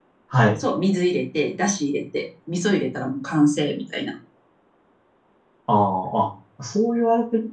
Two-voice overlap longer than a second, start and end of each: none

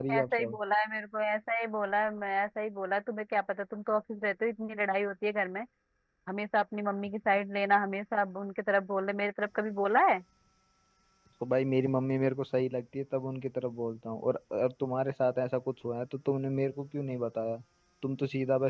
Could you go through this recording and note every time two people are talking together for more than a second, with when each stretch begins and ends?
none

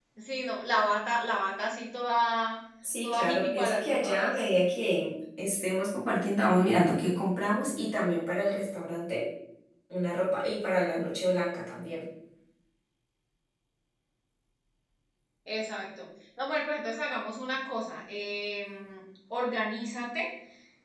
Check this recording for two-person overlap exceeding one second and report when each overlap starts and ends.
3.0-4.3

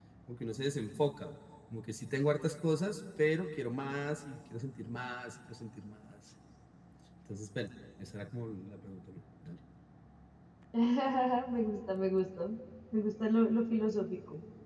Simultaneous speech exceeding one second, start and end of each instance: none

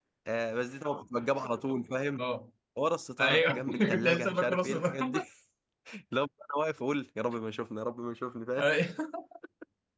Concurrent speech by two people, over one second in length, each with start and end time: 3.2-5.2

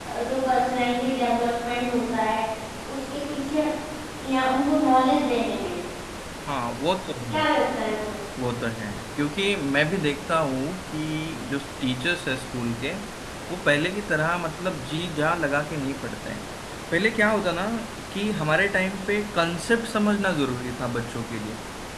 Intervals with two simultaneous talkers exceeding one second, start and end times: none

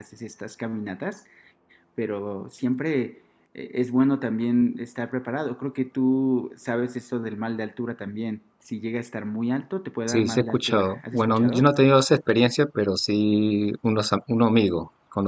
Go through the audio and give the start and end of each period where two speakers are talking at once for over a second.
10.1-11.7

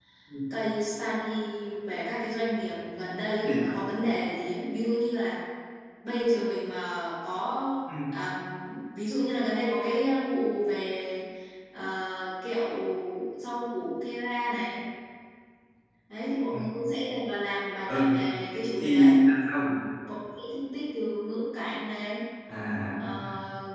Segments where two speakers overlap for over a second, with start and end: none

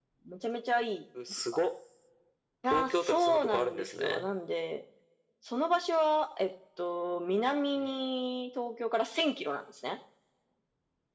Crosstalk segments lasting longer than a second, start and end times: 2.7-4.3

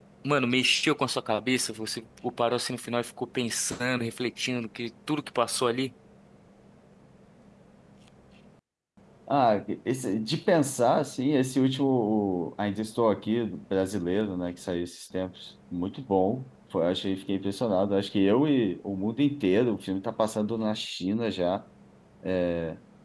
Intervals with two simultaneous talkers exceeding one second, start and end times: none

